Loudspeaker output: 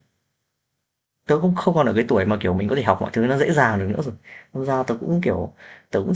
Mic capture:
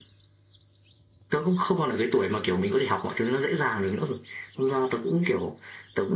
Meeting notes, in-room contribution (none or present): none